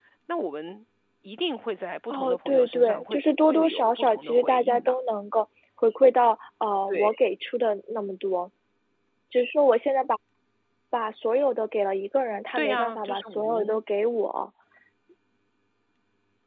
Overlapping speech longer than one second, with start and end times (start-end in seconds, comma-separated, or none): 2.1-5.0, 12.6-13.8